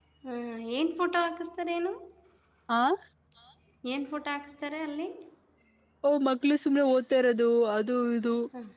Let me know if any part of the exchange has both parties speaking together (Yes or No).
No